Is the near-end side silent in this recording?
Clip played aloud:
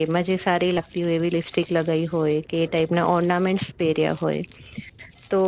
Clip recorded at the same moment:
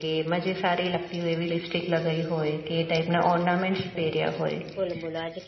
No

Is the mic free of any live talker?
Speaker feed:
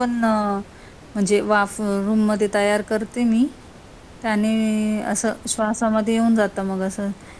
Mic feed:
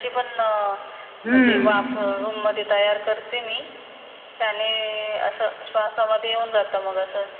No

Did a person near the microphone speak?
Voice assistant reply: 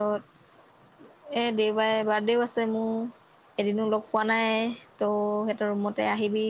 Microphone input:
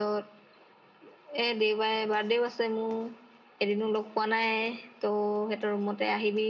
No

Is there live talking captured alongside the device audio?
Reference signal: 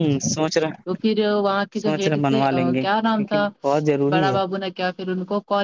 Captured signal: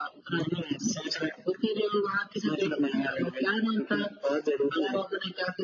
No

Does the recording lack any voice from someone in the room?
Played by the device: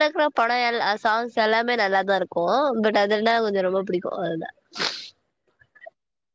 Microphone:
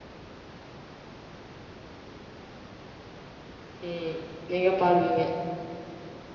No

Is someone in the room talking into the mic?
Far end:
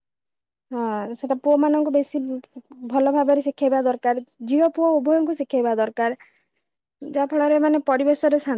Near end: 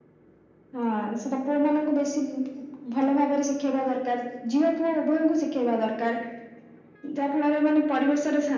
No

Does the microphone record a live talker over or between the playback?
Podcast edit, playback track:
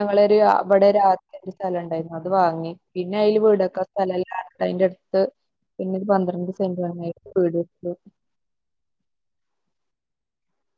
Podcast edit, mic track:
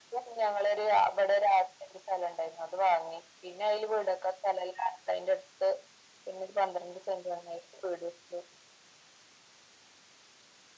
No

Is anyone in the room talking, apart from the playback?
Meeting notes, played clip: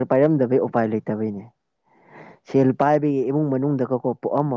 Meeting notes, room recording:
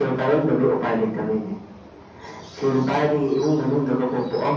No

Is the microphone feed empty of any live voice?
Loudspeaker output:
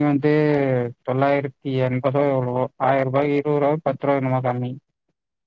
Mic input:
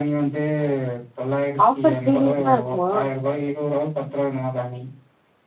No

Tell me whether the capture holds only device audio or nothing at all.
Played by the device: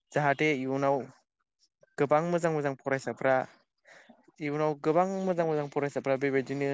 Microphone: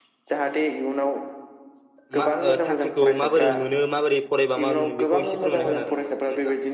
No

